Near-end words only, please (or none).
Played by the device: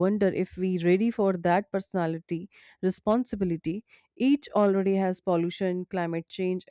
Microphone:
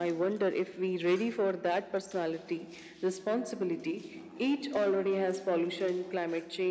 none